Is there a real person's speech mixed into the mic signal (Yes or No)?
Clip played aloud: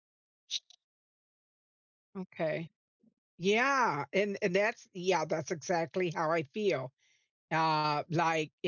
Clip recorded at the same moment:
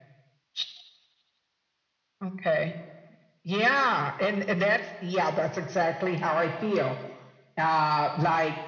No